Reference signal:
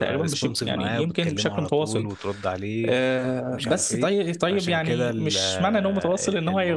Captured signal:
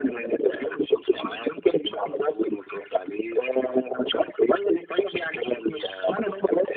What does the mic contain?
echo only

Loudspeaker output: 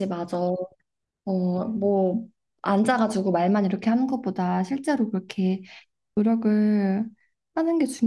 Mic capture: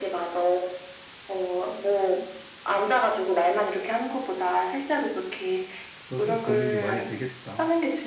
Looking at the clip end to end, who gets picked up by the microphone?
both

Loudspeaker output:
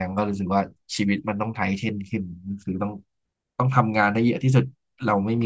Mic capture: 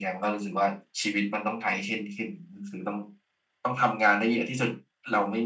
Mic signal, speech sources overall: echo only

